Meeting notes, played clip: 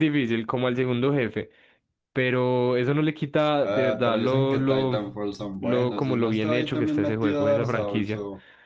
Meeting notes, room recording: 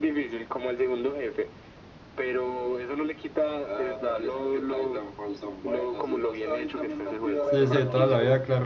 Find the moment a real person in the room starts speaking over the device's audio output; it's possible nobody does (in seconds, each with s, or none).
7.4 s